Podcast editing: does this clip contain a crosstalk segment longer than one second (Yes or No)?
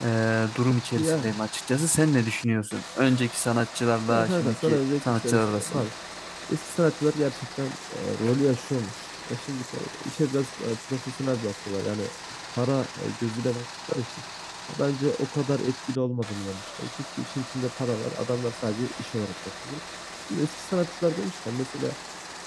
Yes